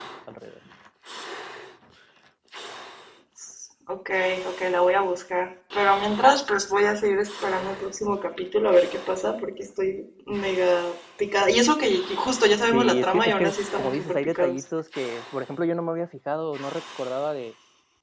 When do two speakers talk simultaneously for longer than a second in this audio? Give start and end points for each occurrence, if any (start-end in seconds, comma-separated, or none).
12.7-14.6